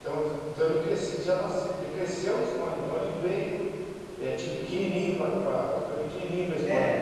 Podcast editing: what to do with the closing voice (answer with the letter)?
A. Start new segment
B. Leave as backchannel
A